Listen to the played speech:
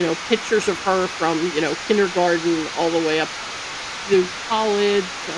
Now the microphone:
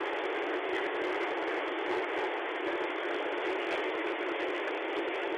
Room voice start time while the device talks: none

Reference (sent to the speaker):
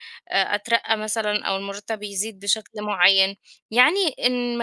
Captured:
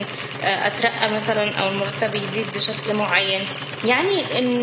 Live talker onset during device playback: none

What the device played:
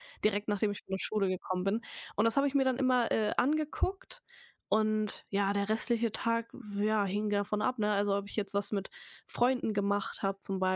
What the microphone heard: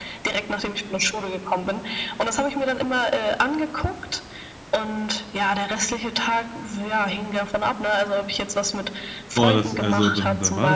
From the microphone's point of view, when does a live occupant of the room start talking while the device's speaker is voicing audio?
9.3 s

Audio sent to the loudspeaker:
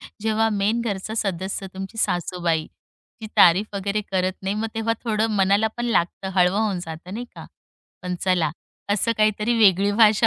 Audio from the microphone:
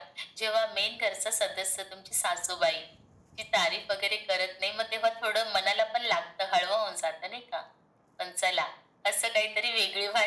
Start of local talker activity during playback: none

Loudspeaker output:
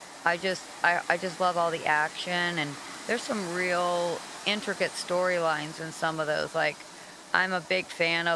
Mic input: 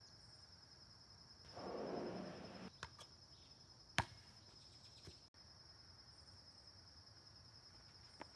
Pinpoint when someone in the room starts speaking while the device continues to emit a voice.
none

